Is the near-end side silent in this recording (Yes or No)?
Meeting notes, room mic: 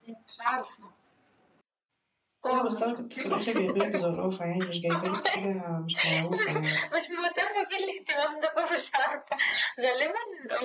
No